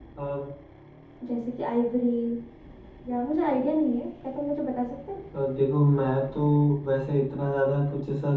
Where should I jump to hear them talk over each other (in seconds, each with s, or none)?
none